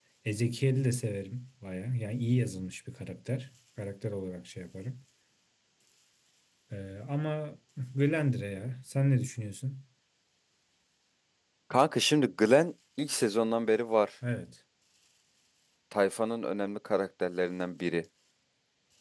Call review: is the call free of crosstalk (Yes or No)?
Yes